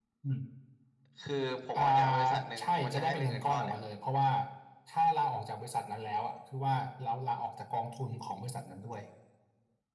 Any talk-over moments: Yes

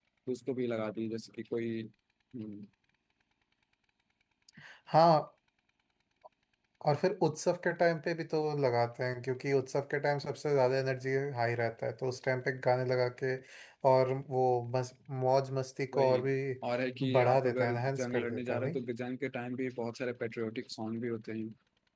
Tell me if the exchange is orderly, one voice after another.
No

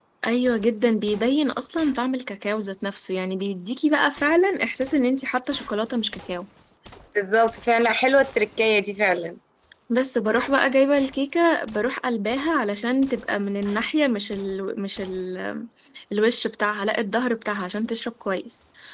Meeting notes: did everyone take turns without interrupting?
Yes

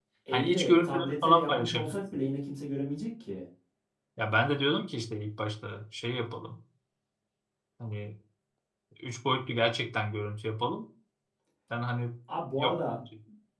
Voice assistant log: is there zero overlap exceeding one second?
No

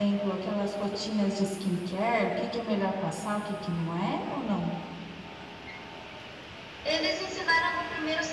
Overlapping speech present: No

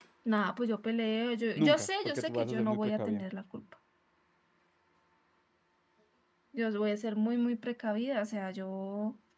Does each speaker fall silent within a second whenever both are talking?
No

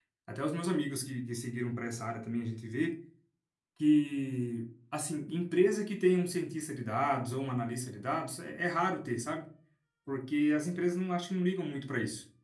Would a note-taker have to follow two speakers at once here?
No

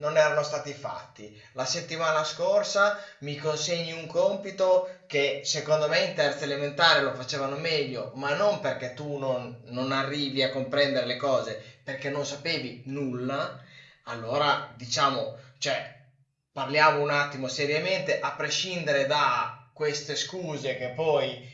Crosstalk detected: No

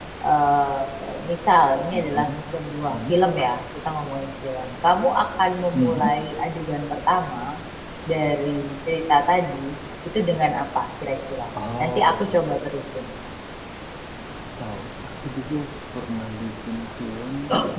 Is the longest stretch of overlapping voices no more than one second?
Yes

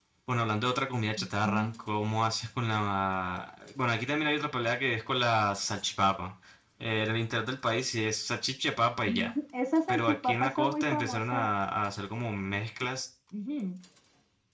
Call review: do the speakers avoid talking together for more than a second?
No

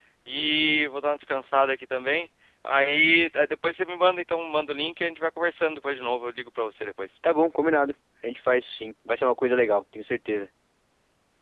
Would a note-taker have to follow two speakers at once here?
No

